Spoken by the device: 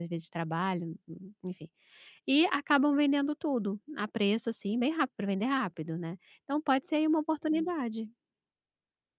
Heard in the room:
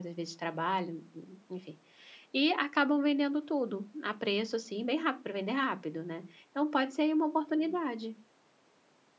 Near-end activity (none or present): none